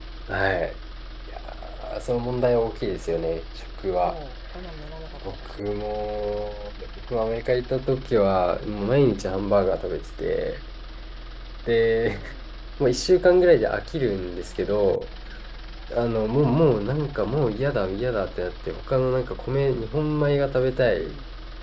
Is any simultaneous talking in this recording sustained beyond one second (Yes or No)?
No